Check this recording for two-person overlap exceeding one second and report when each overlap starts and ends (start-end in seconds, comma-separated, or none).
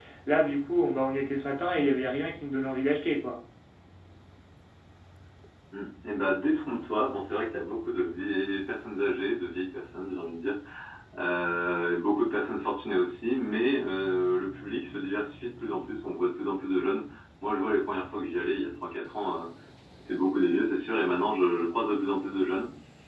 none